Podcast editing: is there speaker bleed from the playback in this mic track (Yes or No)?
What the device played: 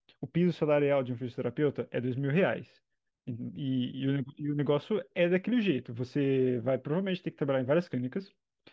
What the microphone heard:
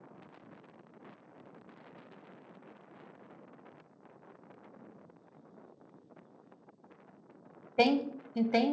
No